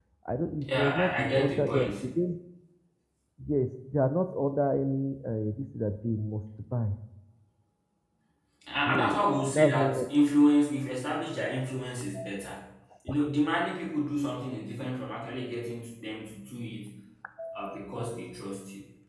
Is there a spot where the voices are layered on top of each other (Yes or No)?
Yes